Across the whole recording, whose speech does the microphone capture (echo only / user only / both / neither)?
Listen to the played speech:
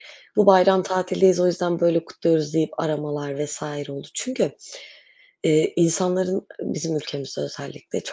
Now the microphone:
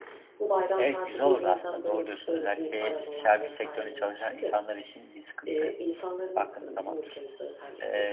both